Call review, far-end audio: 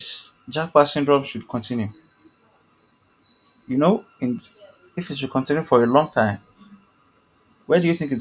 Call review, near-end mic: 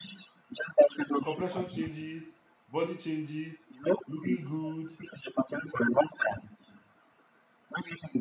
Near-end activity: present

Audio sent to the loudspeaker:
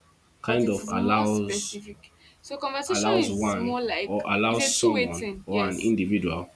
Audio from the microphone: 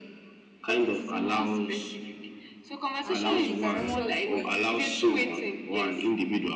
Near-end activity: present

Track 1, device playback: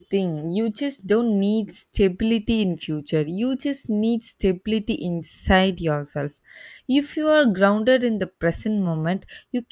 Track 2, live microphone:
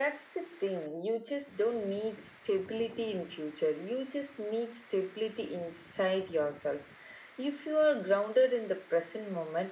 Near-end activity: none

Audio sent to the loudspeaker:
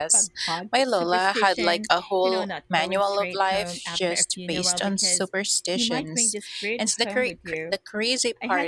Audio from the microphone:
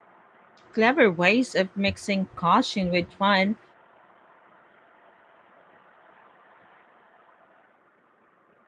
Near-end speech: present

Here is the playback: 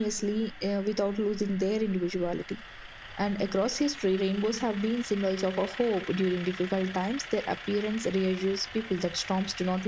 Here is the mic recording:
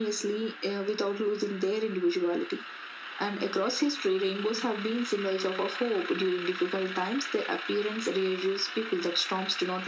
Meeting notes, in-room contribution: none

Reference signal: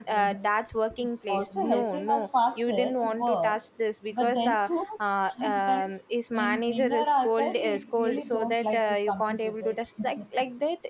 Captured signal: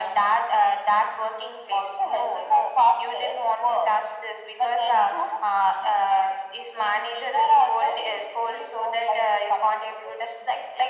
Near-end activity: none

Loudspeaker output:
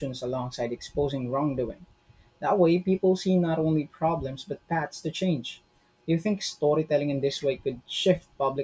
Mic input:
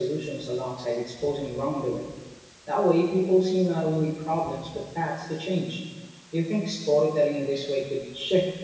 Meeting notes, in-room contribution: none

